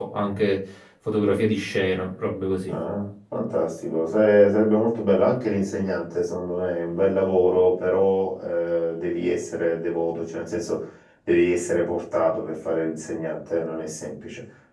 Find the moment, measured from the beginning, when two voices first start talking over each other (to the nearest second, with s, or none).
none